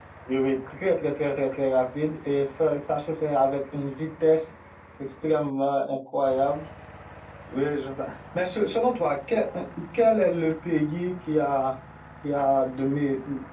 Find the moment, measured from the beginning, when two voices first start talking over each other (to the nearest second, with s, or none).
none